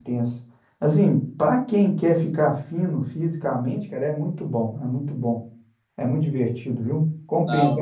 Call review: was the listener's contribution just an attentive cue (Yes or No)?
Yes